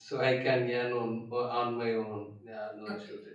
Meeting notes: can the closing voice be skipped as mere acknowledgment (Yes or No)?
No